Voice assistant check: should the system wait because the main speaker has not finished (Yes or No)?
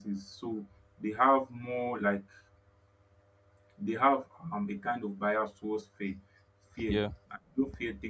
Yes